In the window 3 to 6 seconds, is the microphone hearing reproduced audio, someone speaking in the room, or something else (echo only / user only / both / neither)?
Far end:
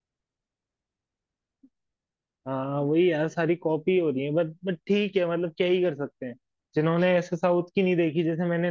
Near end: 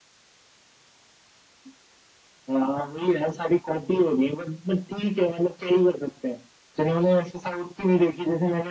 echo only